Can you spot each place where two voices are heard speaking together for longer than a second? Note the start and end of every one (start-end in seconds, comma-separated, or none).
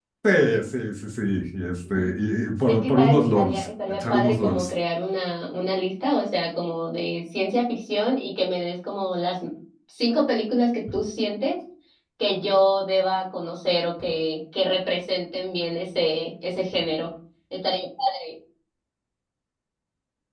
2.7-4.7